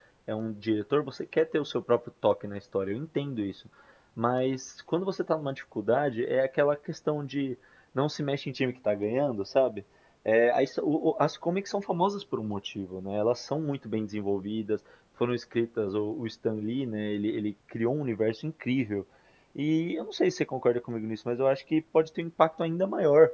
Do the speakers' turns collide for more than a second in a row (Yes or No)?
No